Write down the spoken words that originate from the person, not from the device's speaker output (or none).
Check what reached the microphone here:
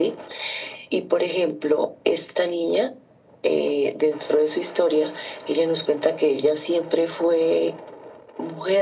none